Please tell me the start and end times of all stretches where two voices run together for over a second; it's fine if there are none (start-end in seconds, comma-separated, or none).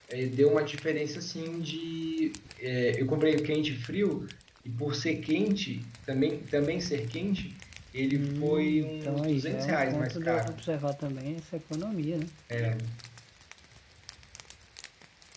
8.1-10.5